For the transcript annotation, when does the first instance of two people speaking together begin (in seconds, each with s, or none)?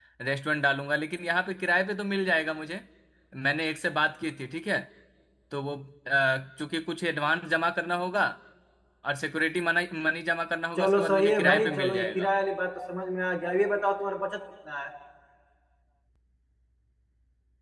10.8 s